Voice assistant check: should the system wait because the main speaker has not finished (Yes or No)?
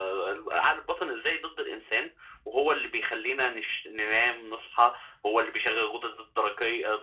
Yes